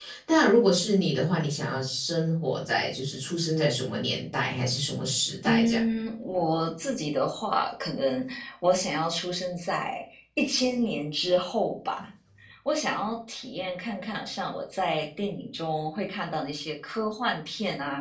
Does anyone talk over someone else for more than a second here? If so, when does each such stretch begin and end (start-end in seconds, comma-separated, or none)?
none